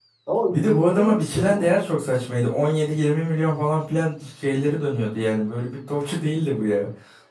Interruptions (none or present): present